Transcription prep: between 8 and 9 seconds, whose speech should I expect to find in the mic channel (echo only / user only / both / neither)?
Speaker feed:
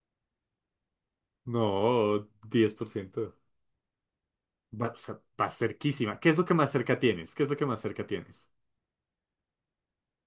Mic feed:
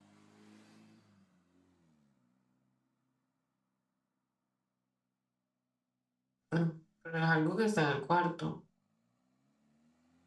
user only